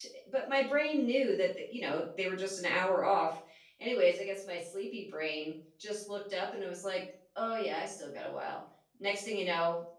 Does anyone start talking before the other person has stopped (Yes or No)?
No